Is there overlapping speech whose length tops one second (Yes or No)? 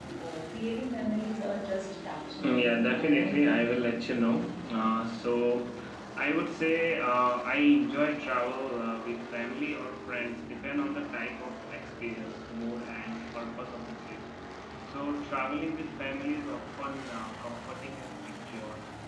Yes